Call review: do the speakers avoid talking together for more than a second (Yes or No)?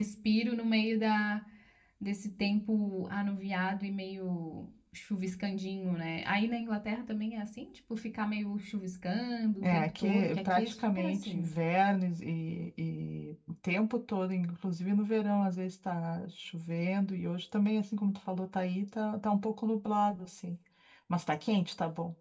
No